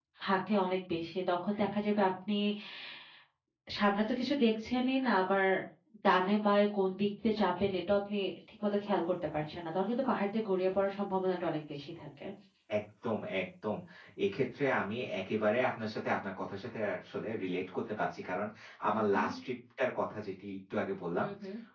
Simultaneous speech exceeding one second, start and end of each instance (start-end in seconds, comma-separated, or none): none